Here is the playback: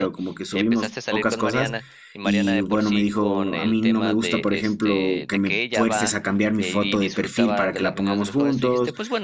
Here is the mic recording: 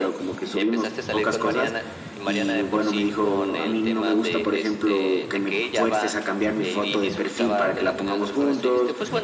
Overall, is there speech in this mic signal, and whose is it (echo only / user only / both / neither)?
echo only